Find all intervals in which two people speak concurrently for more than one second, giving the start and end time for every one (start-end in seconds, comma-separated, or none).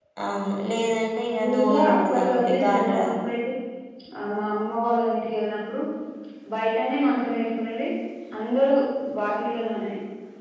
1.6-3.1